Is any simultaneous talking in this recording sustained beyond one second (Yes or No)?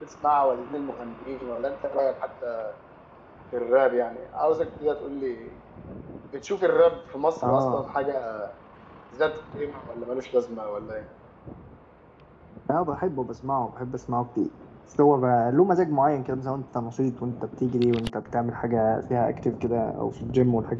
No